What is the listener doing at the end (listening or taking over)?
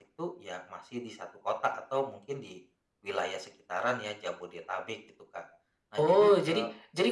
taking over